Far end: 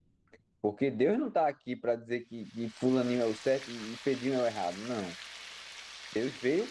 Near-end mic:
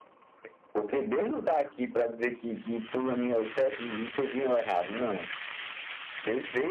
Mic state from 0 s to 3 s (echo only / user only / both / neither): echo only